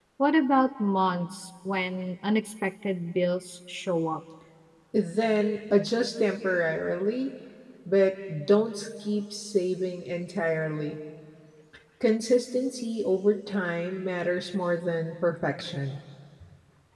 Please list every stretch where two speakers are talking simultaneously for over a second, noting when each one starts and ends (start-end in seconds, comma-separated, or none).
none